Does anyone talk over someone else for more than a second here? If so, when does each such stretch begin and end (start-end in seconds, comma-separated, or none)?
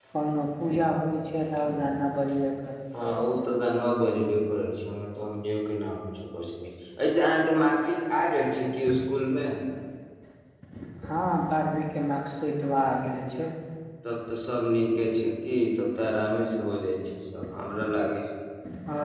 none